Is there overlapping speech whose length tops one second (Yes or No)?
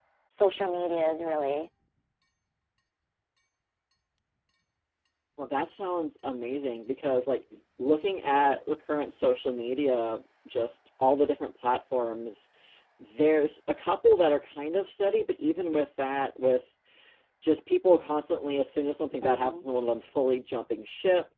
No